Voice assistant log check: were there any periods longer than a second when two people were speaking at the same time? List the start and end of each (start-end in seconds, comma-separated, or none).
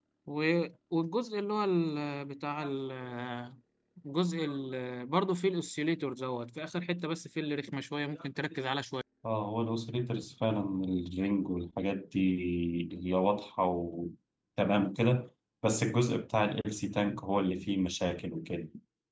none